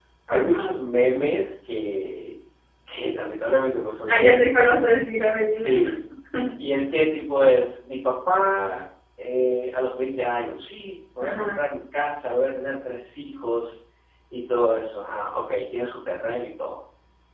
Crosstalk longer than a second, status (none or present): none